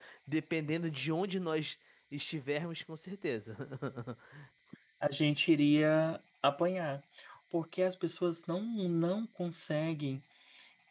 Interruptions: none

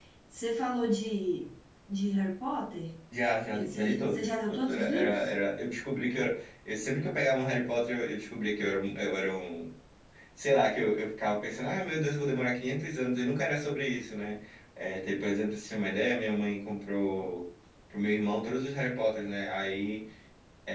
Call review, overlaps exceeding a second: present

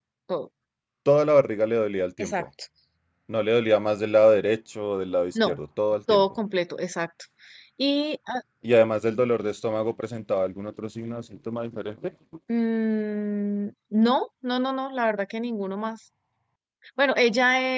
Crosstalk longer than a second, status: none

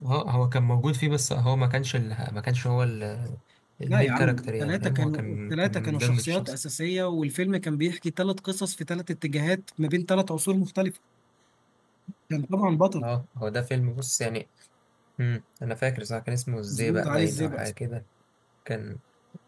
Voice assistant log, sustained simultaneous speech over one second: present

